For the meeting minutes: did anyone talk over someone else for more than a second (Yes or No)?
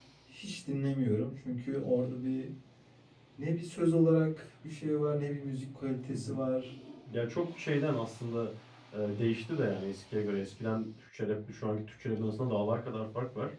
No